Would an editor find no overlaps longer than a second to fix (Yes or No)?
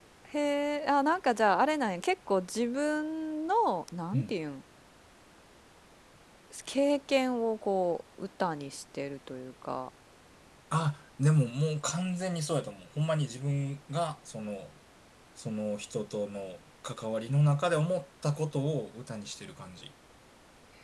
Yes